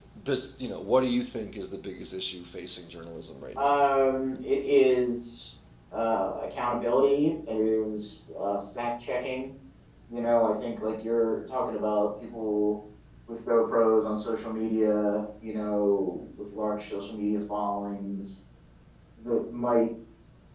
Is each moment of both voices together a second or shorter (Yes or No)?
Yes